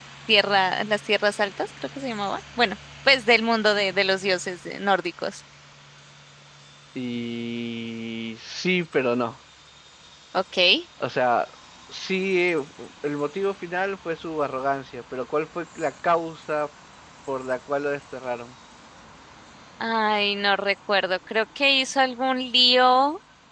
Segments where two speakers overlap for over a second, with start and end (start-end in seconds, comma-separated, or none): none